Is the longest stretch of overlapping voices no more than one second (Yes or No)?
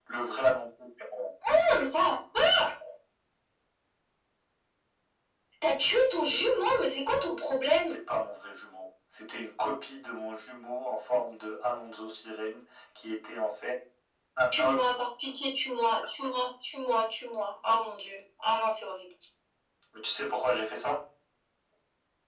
Yes